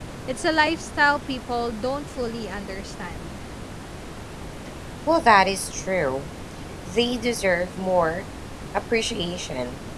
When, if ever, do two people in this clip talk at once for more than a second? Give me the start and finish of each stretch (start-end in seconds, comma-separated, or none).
none